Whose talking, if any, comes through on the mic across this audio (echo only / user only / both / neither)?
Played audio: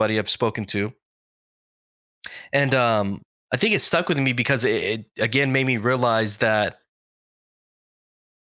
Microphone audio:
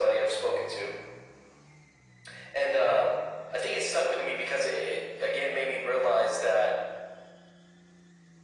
echo only